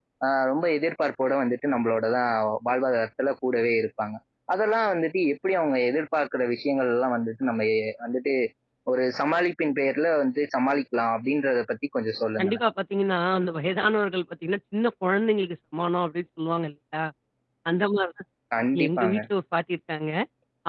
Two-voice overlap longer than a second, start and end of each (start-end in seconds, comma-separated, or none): none